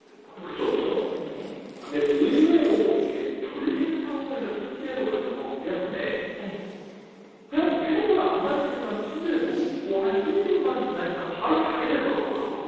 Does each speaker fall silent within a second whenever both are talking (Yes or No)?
Yes